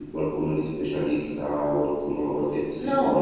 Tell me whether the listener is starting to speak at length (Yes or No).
Yes